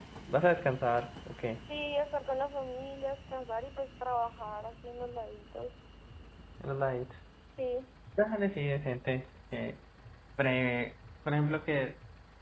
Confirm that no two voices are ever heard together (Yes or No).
Yes